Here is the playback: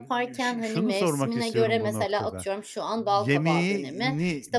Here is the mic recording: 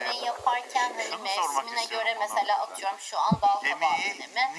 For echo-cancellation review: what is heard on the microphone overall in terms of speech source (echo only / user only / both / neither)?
echo only